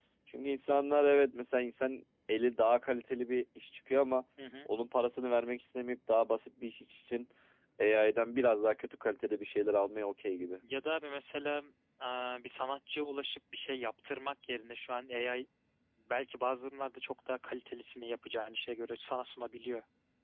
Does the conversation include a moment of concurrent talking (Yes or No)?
No